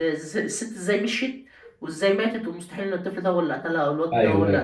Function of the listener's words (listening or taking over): taking over